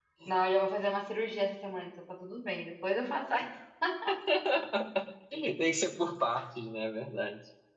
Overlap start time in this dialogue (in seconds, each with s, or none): none